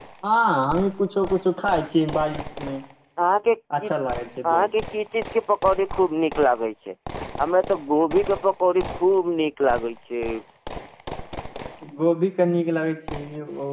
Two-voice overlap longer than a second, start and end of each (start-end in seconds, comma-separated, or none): none